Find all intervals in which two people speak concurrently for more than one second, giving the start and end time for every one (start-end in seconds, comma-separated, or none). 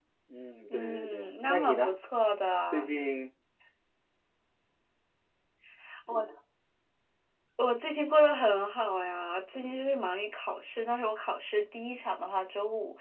0.7-1.9